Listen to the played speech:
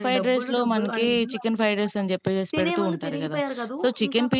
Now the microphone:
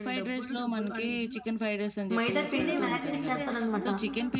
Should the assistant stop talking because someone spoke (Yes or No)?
Yes